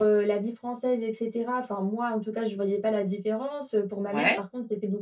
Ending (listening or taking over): listening